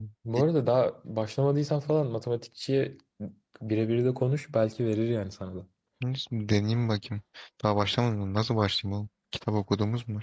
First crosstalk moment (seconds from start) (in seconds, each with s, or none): none